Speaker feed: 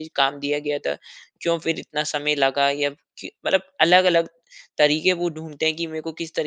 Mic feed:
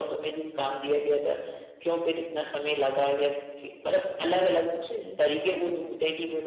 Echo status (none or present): present